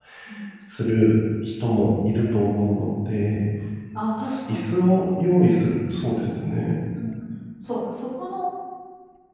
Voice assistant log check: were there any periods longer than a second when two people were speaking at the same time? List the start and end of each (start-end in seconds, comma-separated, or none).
none